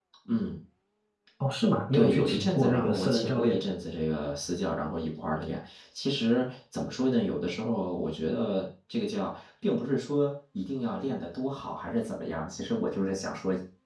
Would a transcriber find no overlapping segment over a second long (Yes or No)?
No